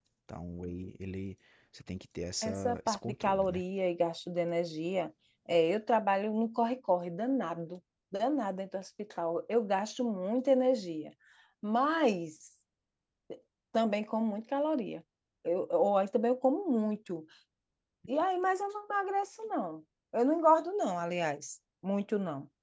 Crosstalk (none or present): present